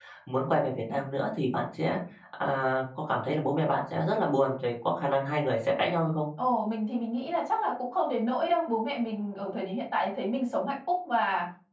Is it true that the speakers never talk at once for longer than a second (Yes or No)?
Yes